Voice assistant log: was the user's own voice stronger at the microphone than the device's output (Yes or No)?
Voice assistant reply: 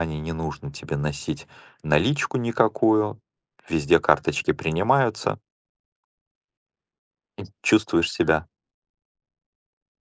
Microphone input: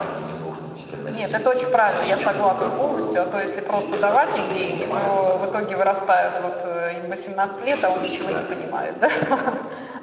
Yes